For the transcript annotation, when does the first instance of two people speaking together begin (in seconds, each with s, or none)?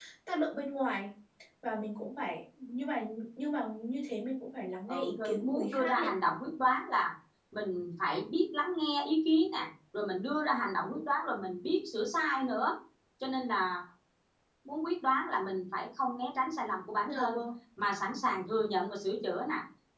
4.9 s